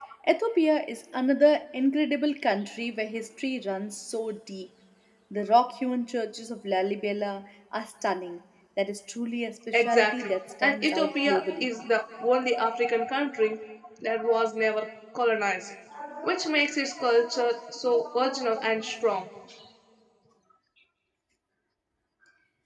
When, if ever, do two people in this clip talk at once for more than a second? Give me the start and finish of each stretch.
9.7-11.7

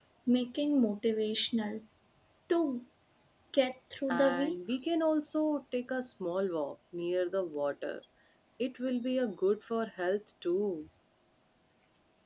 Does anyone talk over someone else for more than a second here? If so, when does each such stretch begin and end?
none

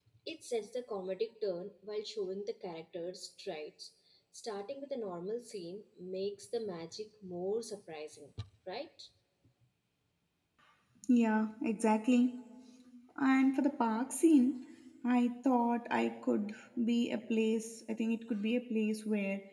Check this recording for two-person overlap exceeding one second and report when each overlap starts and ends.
none

